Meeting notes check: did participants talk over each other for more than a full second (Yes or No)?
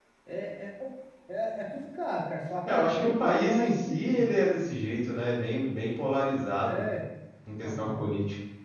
Yes